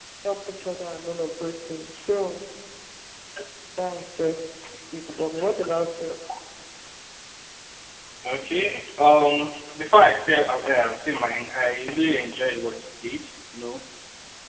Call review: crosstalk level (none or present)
none